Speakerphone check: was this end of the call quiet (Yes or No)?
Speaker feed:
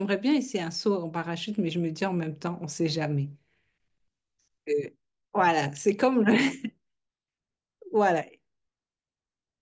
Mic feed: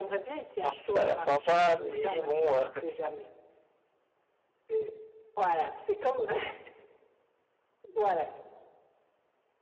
No